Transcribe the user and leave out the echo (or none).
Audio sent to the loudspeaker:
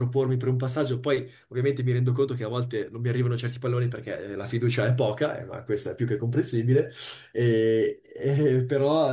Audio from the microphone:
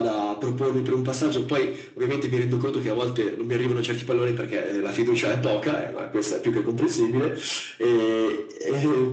none